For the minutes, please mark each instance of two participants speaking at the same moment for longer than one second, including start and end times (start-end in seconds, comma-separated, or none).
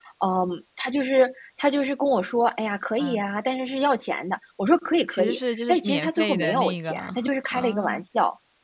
5.1-6.9